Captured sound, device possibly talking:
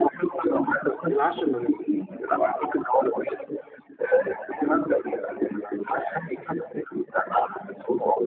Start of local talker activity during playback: 1 s

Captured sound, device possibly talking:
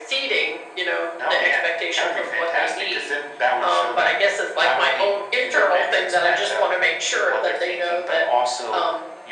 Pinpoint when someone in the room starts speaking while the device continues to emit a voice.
none

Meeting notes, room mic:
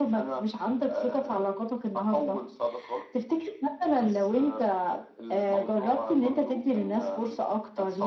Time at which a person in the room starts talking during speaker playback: none

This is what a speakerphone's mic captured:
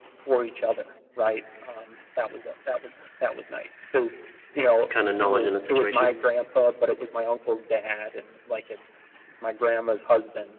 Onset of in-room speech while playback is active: 5 s

